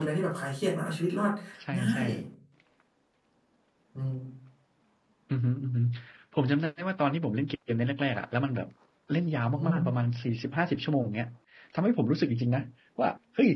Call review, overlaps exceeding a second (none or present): none